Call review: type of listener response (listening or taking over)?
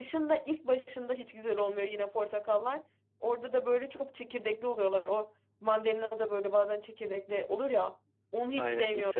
taking over